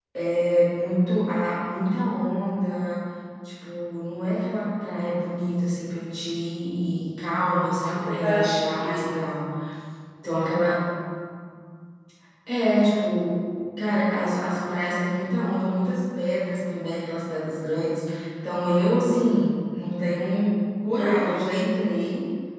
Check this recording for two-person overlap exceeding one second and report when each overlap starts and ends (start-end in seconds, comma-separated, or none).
7.8-9.2